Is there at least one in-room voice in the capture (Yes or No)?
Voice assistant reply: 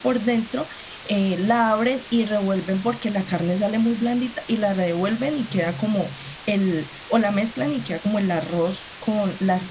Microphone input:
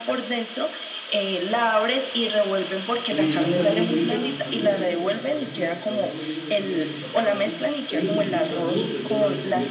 Yes